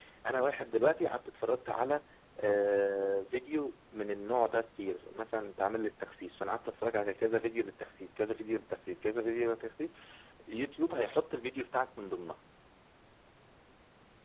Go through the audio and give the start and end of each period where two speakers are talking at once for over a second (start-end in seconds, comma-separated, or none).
none